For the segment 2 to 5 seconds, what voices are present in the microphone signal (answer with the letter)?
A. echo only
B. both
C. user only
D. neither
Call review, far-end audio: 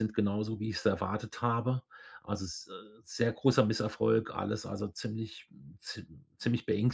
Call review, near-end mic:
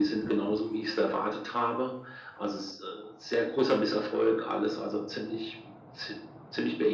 A